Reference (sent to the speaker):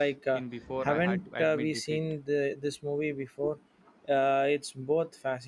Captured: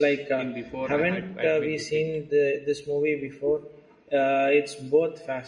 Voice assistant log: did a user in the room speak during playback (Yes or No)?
No